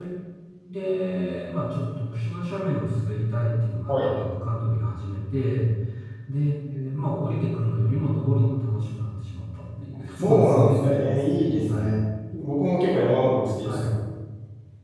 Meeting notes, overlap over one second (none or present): present